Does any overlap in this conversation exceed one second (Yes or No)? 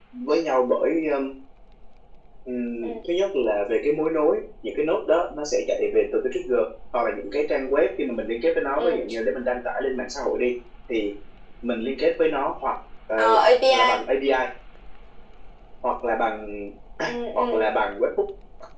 No